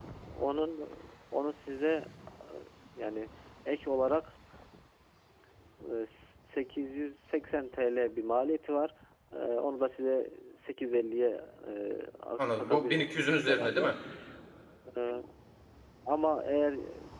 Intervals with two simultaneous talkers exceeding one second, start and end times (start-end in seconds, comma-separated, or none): 12.4-13.9